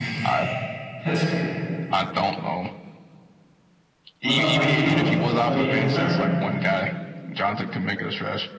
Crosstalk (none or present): present